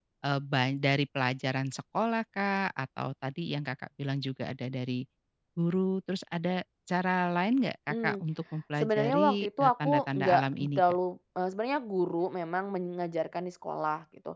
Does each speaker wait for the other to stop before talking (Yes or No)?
No